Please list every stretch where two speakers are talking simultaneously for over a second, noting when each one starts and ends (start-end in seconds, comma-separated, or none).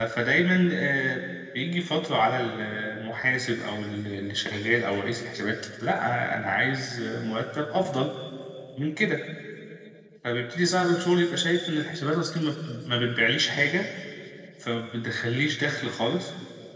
none